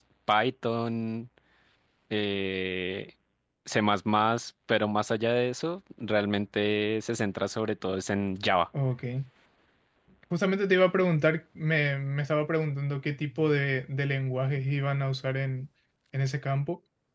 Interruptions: none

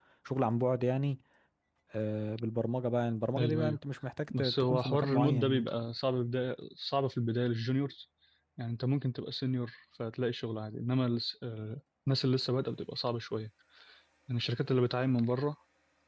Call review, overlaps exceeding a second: present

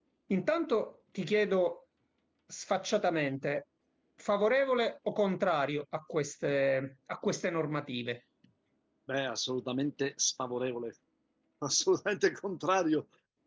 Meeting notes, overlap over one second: none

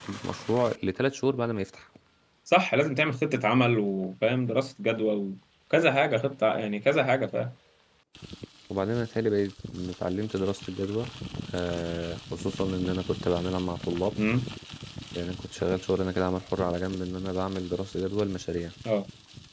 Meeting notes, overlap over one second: none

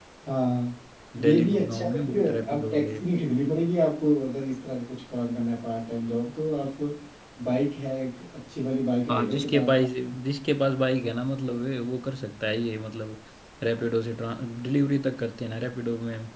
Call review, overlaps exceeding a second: present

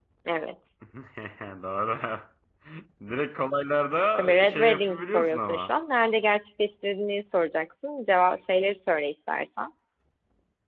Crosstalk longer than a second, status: present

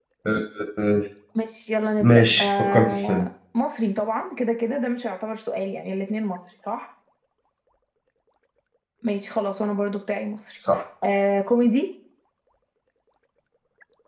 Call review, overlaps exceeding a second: present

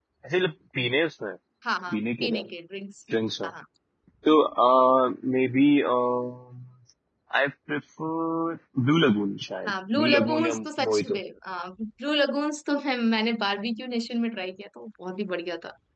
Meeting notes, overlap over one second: present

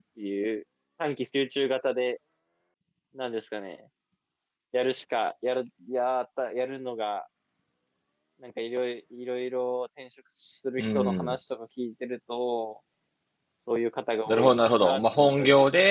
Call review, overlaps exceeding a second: present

